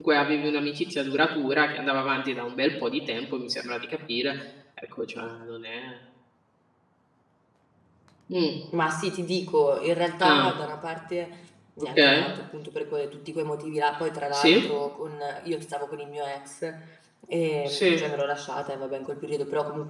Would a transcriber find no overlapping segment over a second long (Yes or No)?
Yes